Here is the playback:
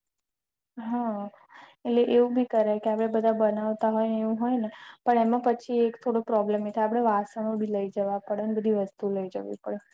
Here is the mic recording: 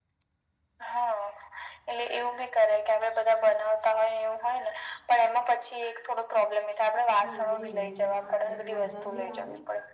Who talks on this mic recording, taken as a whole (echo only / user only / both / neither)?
both